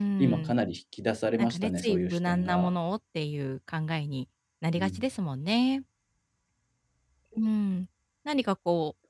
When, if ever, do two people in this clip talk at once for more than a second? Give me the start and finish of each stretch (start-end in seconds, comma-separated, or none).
1.4-2.7